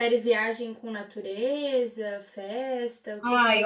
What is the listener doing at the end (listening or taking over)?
taking over